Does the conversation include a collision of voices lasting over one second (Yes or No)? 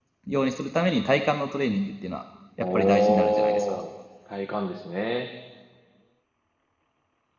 Yes